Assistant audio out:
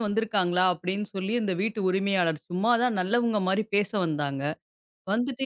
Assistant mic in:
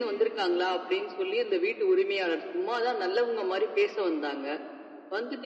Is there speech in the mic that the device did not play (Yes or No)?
No